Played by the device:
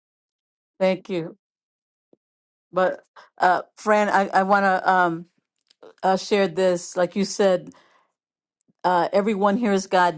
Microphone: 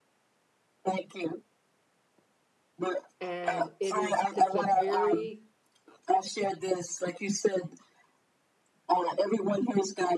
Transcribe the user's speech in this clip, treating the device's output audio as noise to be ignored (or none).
And it is it's a very